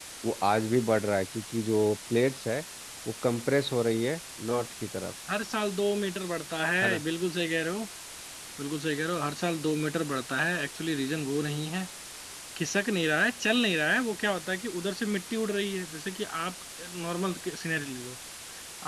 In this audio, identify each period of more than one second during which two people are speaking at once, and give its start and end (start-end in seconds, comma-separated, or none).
none